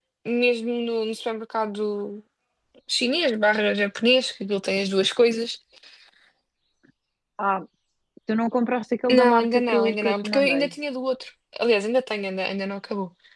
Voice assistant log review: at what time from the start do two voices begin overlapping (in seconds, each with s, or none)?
9.1 s